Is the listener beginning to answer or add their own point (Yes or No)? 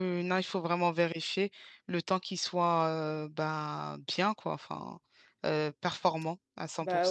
Yes